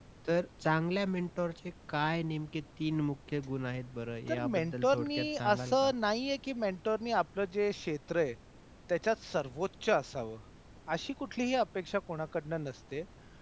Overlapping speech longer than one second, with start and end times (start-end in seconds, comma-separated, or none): 4.3-5.9